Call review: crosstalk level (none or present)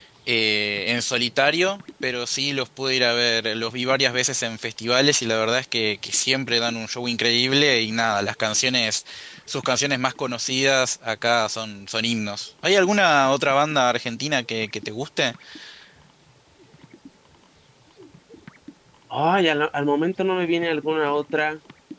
none